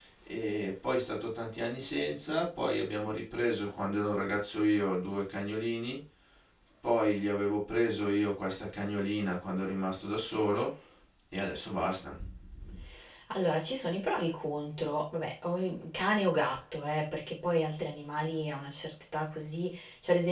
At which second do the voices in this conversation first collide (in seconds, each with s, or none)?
none